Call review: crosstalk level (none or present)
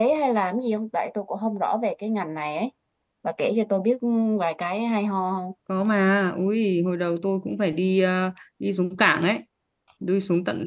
none